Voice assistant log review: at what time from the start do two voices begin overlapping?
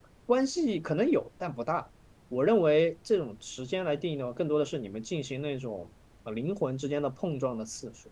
none

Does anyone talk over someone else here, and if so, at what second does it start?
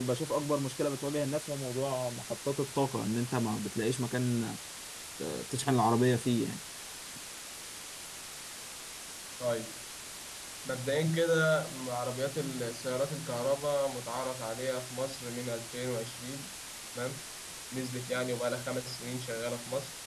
none

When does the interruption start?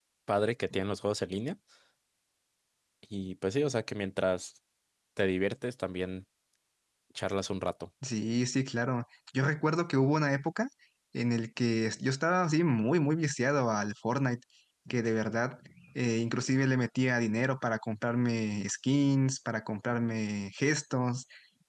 none

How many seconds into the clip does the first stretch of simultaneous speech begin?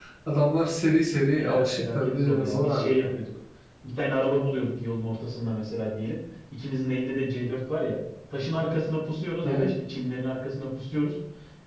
1.4 s

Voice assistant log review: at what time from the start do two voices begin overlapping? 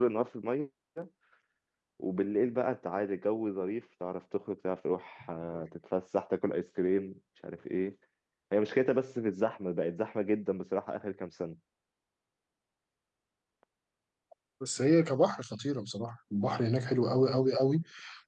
none

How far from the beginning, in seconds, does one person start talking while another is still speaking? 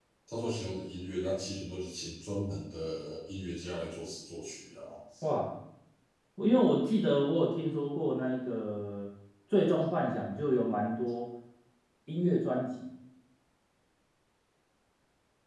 none

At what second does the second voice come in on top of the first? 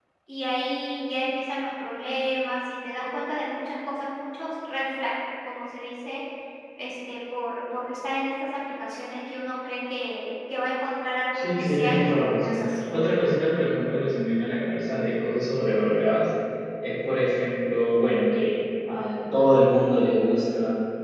11.3 s

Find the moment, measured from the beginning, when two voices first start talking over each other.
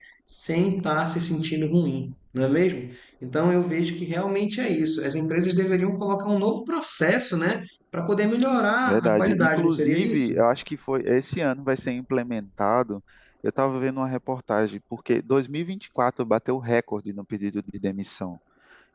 8.9 s

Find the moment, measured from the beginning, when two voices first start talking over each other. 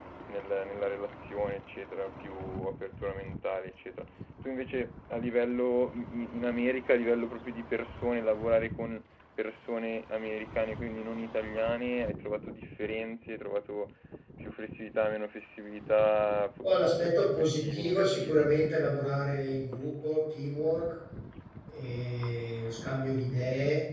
16.6 s

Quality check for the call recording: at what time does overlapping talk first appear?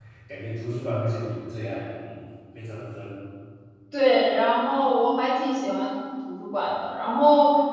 none

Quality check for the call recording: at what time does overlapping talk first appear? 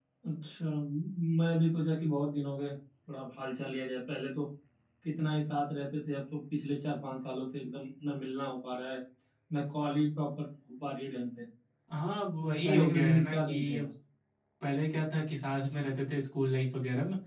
12.6 s

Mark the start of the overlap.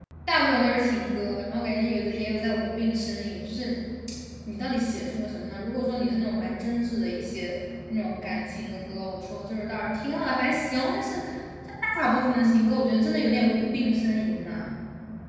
none

